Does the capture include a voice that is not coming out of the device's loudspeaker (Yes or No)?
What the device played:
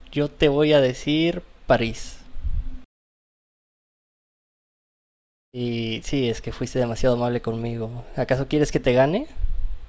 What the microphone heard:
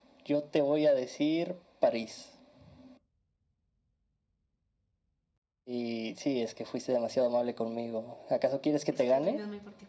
Yes